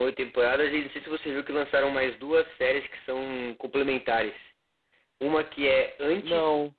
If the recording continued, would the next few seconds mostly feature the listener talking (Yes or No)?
No